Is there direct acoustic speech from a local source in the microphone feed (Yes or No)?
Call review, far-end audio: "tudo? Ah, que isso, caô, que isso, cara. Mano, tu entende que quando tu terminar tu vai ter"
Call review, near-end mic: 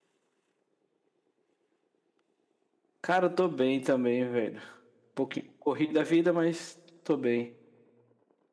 Yes